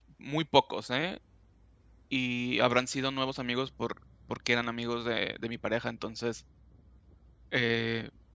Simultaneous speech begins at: none

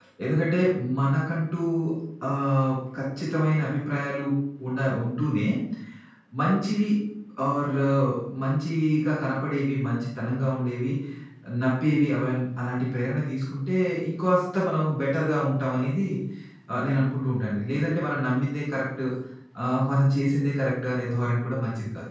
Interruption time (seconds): none

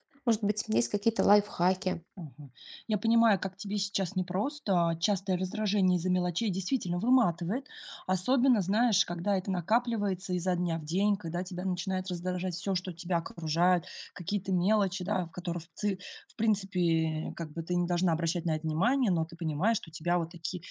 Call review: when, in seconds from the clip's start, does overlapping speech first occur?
none

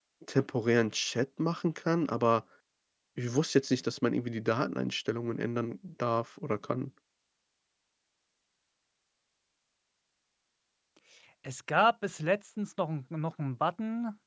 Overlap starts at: none

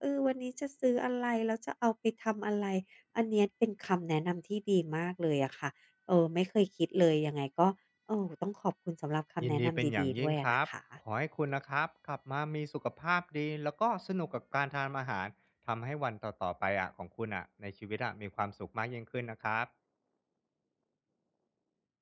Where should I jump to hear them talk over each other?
9.4 s

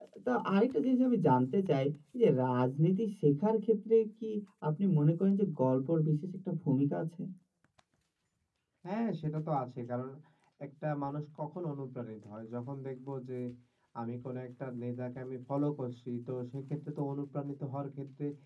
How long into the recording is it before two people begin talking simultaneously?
none

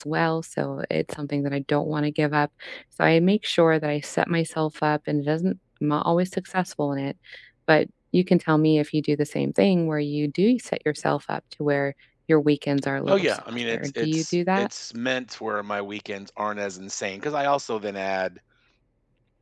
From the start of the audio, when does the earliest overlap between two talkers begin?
13.1 s

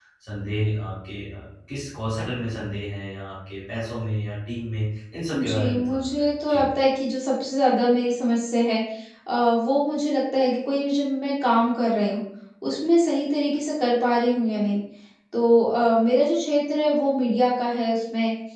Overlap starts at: 5.3 s

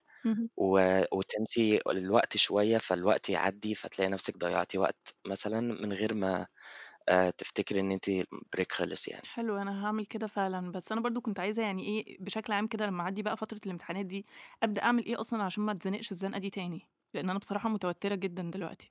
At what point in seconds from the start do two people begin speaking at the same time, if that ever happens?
none

